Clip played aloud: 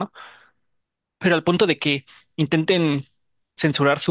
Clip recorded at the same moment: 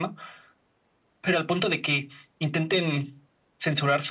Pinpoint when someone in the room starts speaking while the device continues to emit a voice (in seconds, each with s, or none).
none